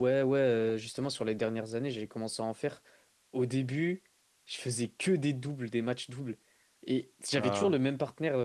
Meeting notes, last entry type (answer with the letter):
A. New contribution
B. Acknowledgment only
B